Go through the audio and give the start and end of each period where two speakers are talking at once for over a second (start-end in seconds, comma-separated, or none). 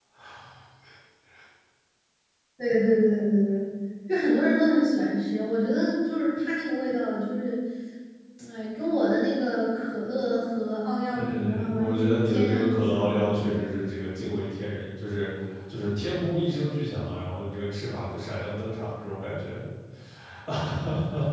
11.1-13.5